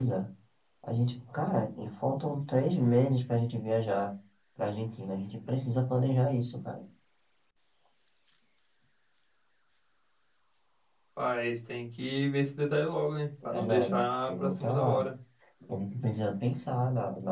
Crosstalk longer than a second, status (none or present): present